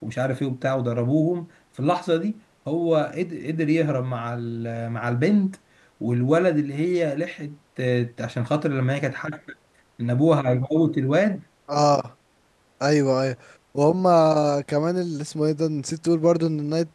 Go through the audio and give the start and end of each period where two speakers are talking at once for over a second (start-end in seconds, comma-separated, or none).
none